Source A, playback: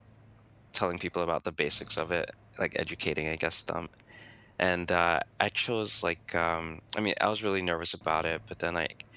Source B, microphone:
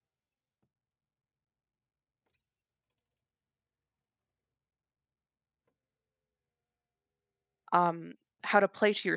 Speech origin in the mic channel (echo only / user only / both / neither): user only